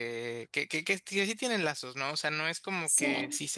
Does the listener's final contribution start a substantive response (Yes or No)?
No